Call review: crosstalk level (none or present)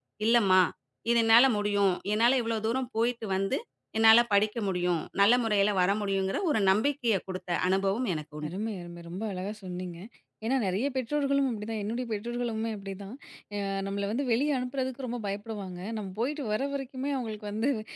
none